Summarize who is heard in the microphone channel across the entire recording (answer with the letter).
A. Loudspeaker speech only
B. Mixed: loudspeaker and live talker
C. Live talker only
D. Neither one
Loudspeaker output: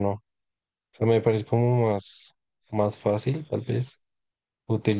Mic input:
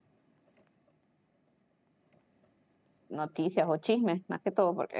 C